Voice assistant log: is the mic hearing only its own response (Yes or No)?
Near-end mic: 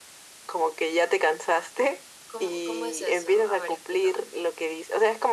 Yes